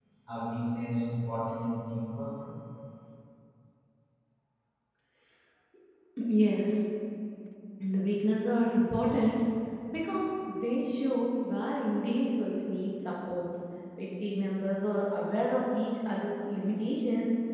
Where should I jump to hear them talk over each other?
none

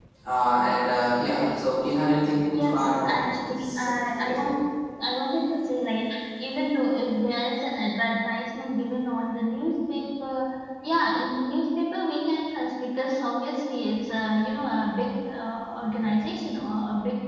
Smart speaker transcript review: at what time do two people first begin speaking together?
2.5 s

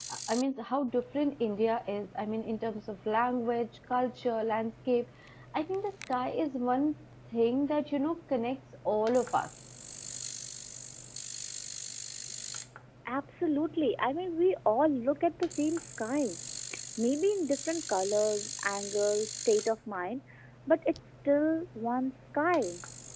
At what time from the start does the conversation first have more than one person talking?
none

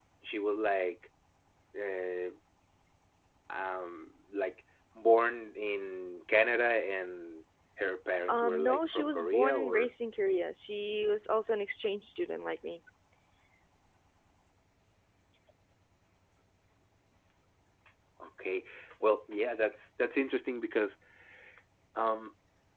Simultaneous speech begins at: 8.3 s

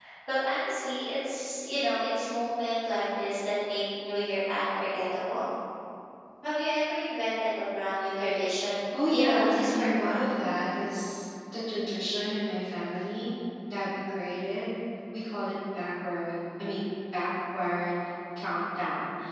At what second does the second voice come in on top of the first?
8.9 s

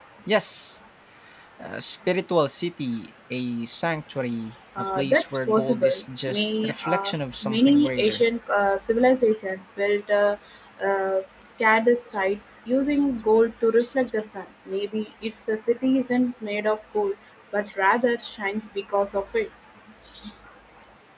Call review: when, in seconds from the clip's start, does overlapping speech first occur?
4.8 s

